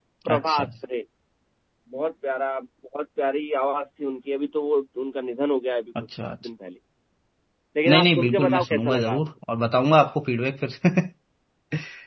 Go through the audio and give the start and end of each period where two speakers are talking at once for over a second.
7.9-9.2

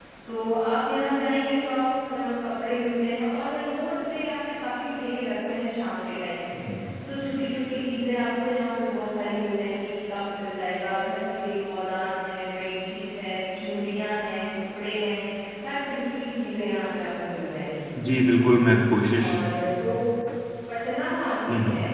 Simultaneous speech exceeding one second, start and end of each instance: none

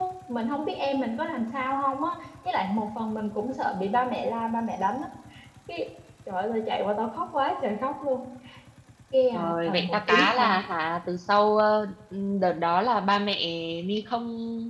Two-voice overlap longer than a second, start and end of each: 9.3-10.6

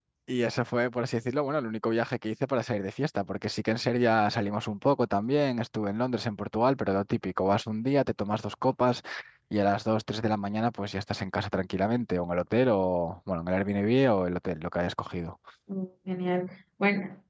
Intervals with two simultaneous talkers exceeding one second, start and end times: none

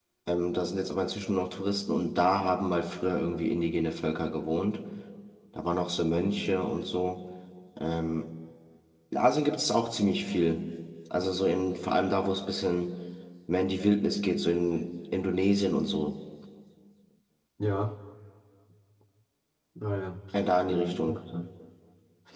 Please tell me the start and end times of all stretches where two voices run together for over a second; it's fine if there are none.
none

